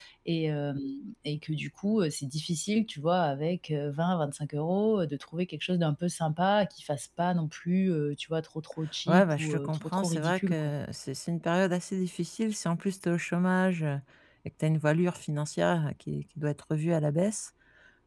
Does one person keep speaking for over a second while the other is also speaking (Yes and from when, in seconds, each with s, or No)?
Yes, from 9.1 s